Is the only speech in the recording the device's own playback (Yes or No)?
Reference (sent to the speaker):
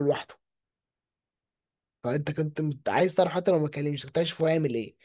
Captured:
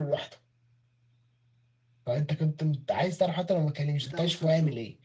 No